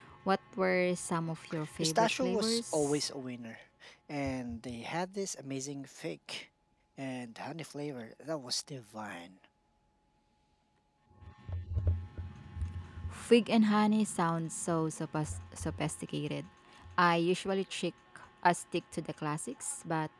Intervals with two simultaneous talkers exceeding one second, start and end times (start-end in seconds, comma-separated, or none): 1.8-3.0